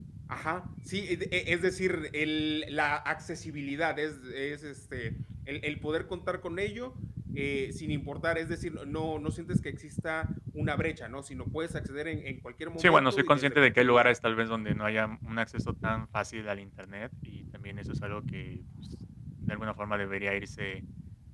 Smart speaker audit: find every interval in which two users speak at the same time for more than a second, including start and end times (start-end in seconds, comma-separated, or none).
12.8-14.1